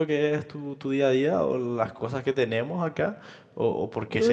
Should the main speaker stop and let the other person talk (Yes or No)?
Yes